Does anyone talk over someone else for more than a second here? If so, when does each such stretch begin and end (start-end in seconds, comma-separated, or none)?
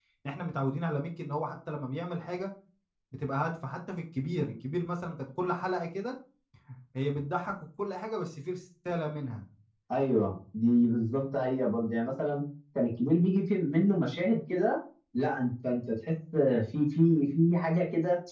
none